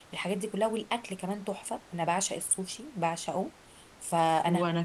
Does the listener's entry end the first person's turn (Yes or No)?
No